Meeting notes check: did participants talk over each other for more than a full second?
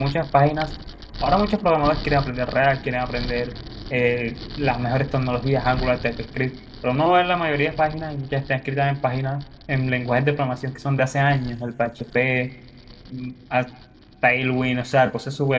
No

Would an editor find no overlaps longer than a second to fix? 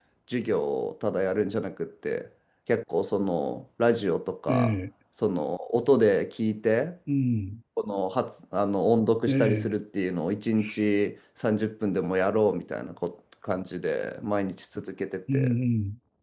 Yes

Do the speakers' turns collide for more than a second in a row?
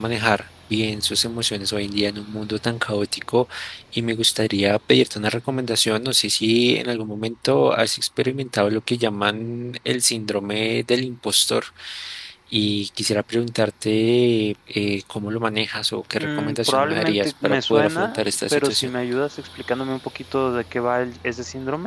Yes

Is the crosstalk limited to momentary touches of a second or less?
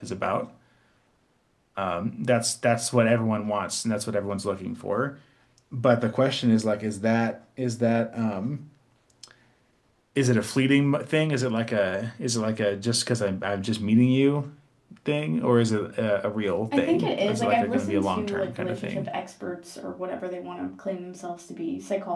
No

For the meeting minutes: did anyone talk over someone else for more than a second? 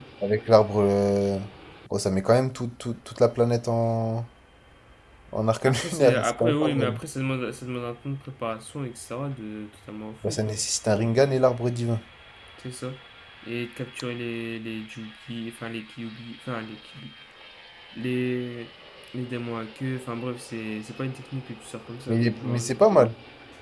Yes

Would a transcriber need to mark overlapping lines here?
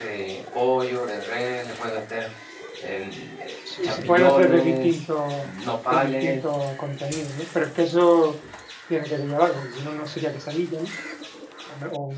Yes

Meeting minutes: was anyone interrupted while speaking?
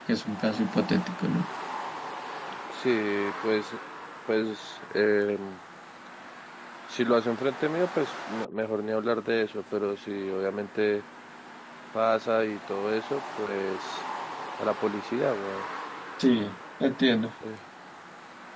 No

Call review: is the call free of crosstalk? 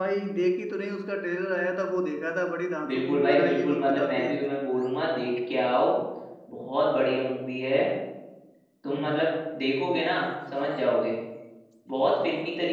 No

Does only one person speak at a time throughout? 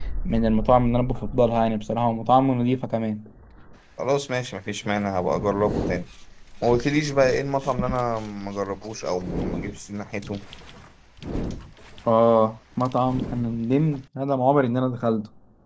Yes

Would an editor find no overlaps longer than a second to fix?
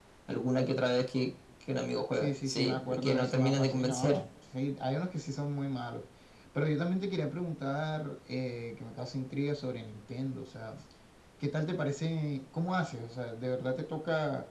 No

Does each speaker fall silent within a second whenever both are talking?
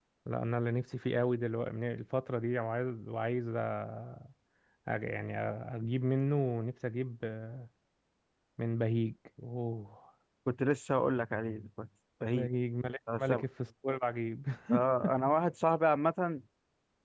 Yes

